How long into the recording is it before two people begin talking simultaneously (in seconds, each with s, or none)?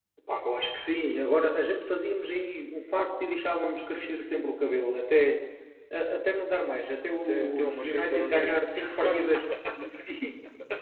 7.1 s